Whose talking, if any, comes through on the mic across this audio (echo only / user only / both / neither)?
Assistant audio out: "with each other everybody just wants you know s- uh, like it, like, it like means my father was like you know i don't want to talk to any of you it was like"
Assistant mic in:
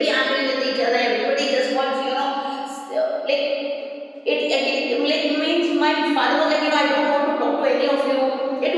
echo only